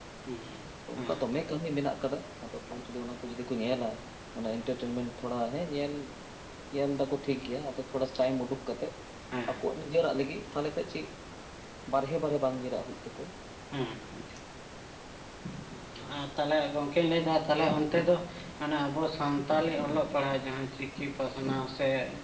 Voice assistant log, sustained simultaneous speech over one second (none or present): none